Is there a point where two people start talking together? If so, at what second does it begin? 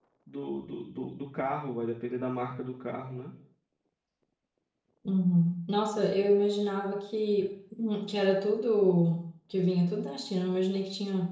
none

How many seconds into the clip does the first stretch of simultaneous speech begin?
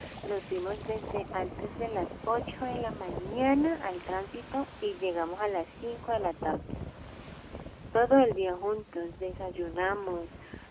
none

